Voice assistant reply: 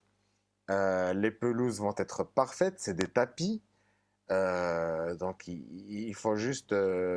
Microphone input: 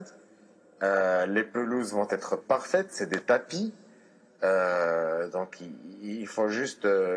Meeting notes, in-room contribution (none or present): none